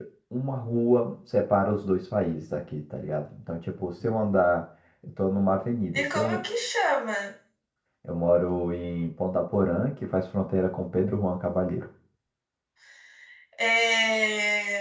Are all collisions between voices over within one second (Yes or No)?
Yes